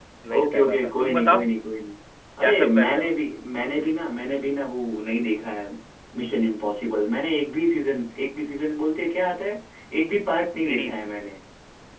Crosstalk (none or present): present